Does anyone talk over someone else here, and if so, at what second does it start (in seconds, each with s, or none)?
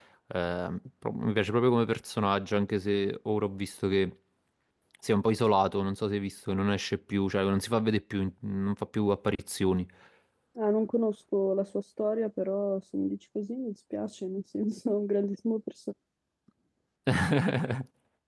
none